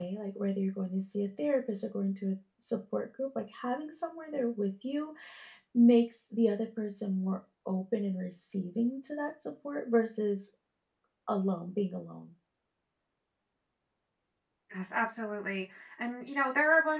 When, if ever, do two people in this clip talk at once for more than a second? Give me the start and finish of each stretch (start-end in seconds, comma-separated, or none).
none